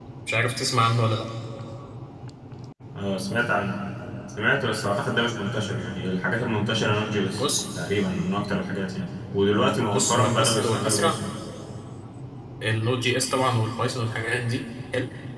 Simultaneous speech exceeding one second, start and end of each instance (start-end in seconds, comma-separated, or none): 9.9-11.2